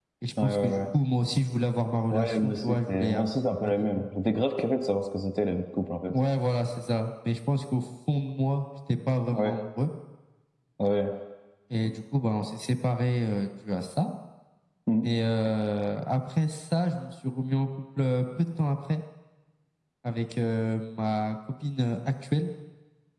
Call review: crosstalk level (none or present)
present